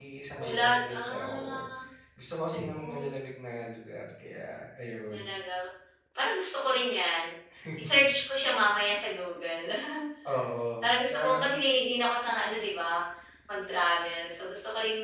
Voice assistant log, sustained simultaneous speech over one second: present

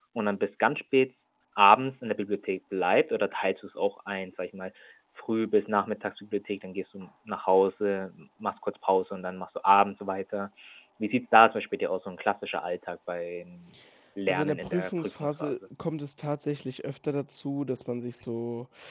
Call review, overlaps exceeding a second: present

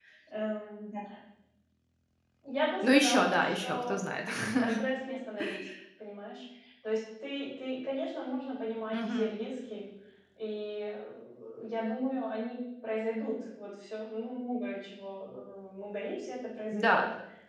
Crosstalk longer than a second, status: present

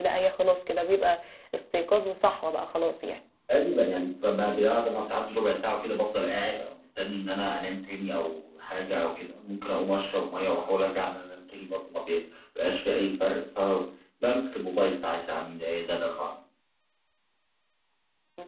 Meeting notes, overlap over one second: none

